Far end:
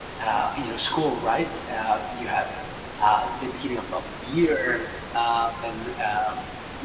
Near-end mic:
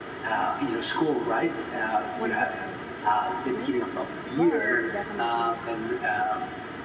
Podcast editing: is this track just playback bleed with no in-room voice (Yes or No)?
No